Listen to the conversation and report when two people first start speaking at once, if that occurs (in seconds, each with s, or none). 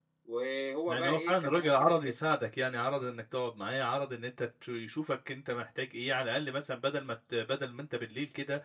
0.9 s